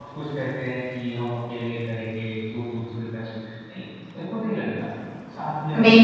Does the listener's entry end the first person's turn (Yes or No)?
Yes